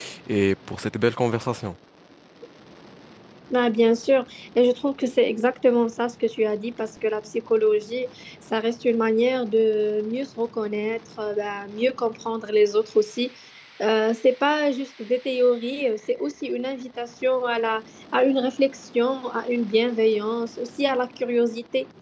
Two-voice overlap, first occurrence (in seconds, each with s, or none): none